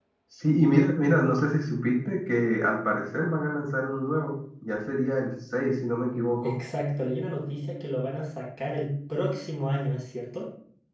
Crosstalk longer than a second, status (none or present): none